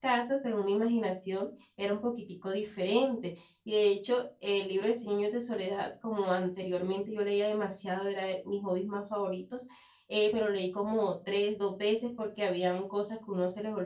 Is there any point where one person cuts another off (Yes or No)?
No